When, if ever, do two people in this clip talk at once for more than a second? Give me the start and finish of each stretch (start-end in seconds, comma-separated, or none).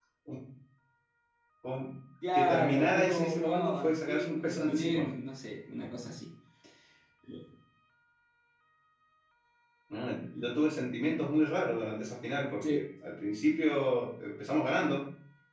2.3-5.0